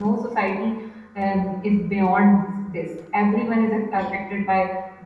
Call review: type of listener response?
listening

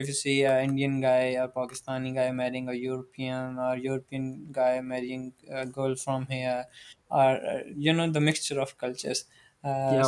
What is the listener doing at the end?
taking over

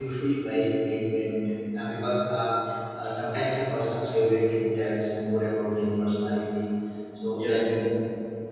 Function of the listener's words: listening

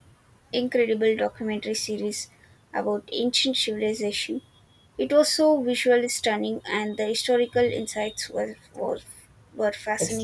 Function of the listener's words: taking over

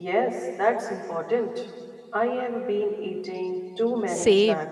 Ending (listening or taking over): taking over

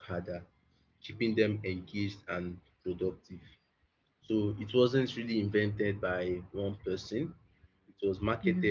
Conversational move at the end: listening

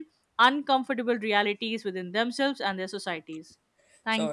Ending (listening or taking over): taking over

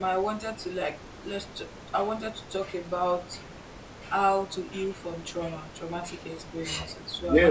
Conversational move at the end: taking over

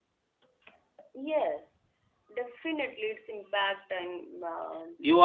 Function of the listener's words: taking over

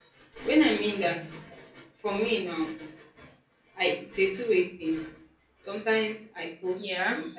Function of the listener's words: listening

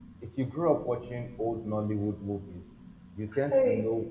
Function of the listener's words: listening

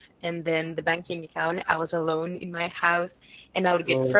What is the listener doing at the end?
listening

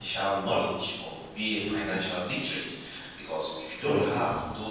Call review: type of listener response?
listening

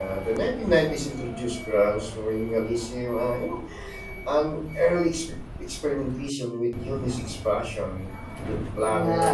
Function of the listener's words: listening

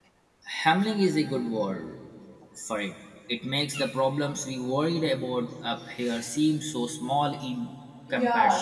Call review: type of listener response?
taking over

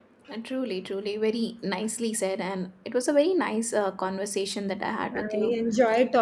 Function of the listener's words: taking over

